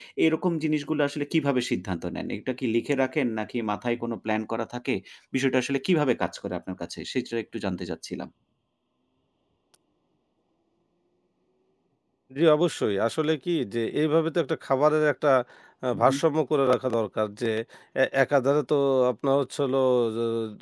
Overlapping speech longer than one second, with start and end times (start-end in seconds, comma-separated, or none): none